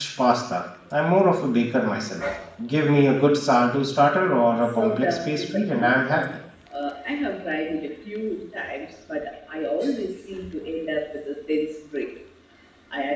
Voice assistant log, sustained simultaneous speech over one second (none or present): present